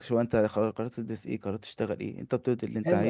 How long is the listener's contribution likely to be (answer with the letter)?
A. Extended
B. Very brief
A